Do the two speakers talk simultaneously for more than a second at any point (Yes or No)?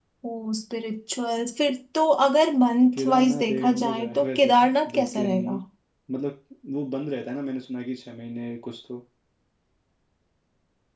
Yes